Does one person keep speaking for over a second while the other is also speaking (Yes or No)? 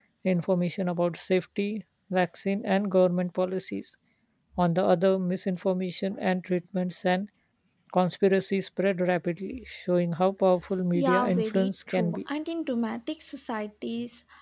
Yes